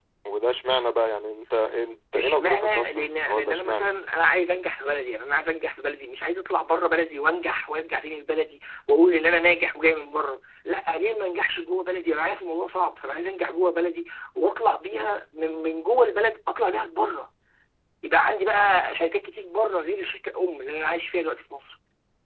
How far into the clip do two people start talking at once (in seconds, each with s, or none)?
2.1 s